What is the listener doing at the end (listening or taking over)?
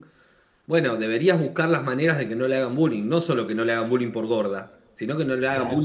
listening